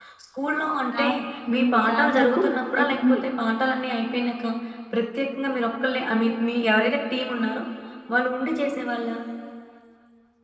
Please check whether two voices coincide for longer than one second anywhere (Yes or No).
Yes